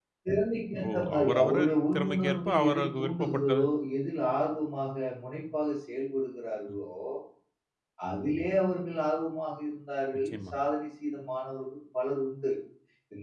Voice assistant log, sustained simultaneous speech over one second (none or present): present